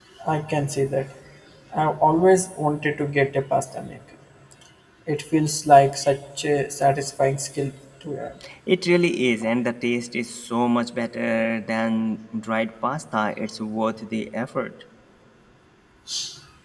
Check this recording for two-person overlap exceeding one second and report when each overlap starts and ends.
none

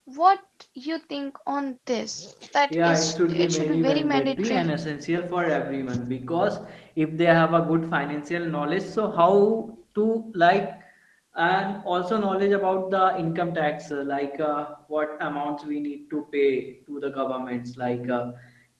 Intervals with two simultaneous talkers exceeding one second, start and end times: 2.7-4.7

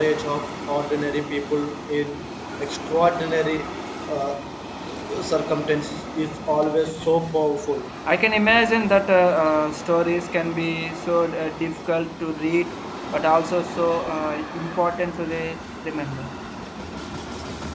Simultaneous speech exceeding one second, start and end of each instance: none

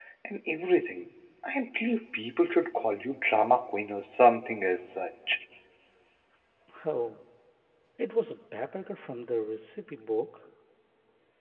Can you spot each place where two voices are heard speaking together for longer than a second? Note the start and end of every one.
none

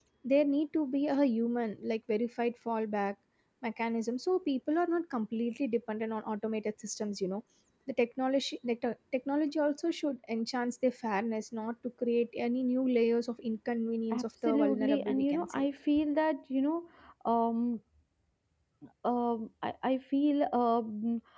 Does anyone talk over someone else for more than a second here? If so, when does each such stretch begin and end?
14.1-15.7

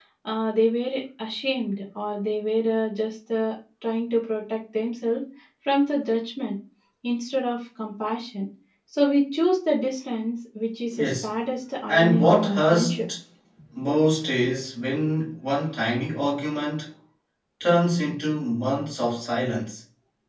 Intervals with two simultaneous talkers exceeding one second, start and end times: 11.9-13.1

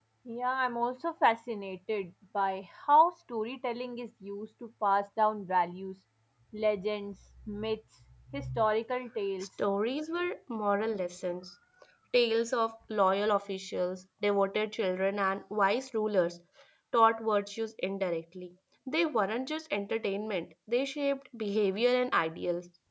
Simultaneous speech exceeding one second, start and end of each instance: none

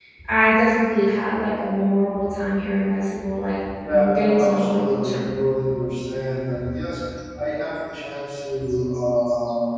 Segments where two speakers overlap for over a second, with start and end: 3.9-5.3

